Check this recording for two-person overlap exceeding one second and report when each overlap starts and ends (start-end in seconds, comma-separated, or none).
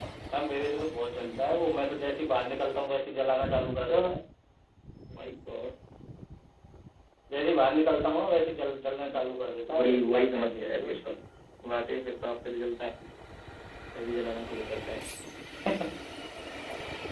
9.8-11.0